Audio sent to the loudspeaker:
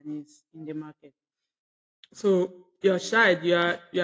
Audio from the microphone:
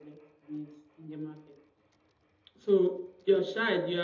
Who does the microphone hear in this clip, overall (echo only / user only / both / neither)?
echo only